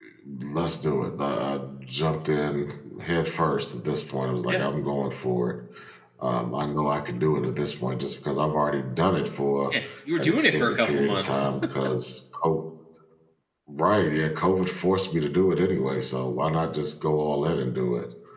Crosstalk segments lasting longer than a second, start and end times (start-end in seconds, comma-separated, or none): 10.2-11.5